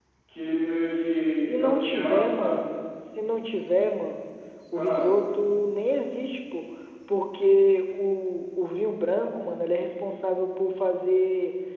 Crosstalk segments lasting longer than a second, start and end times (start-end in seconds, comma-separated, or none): 0.9-2.6